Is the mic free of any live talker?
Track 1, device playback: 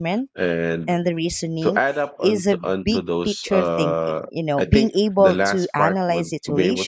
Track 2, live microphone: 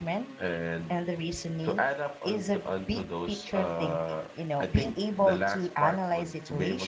Yes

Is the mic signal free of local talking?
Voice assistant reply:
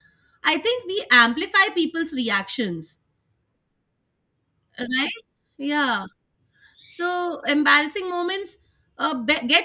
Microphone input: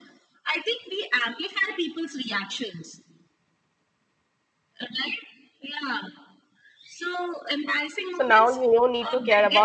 No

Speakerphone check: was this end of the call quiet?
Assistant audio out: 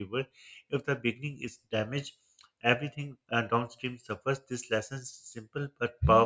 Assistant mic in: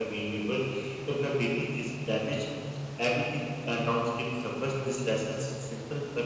Yes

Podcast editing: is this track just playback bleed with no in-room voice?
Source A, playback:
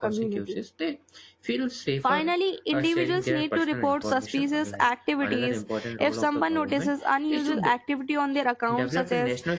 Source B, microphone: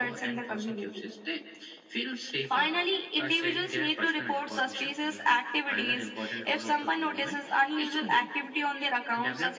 Yes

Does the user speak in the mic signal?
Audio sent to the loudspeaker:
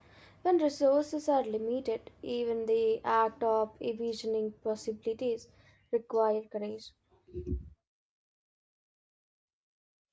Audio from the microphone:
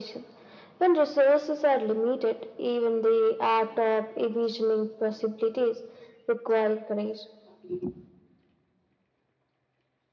No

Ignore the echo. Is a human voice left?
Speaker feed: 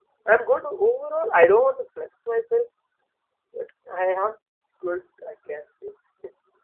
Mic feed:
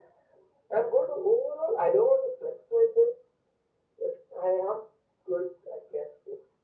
No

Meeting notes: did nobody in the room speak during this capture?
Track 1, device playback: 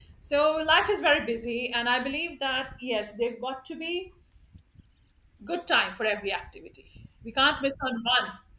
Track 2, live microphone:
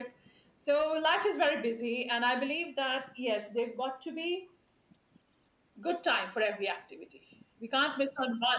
Yes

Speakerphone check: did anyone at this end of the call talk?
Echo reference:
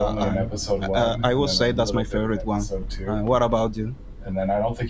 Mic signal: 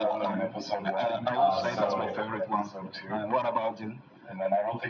Yes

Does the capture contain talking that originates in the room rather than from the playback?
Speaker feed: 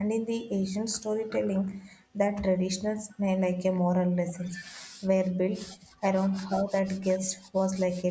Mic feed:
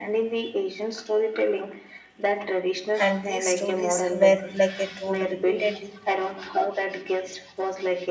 Yes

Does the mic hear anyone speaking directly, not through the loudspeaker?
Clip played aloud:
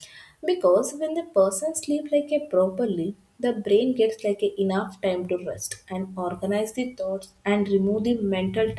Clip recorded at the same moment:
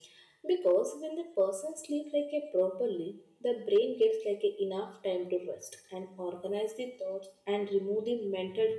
No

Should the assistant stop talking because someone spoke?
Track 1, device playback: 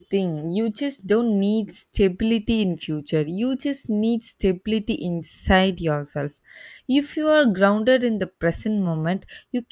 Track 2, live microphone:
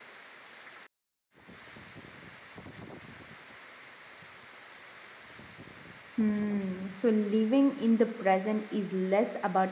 Yes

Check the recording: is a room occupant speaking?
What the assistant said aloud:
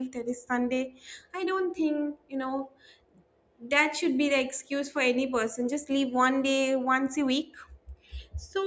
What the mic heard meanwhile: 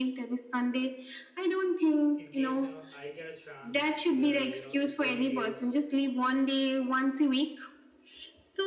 Yes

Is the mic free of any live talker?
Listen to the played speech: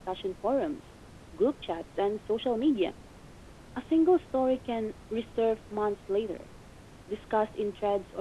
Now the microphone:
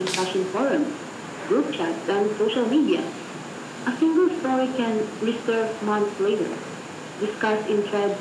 Yes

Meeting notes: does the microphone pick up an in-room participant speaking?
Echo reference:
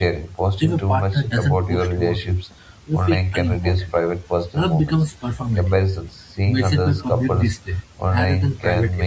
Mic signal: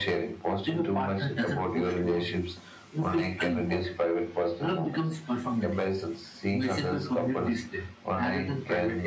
No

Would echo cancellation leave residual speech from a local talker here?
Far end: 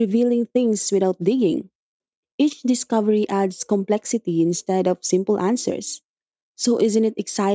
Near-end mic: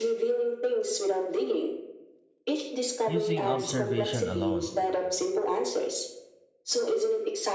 Yes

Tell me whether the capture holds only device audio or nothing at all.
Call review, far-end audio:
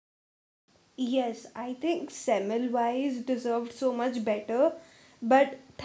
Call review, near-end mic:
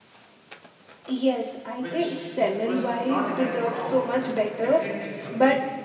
No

